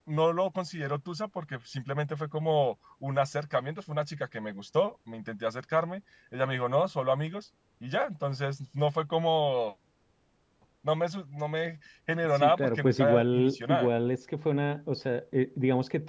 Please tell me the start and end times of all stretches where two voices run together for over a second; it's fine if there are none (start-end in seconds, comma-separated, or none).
12.3-13.9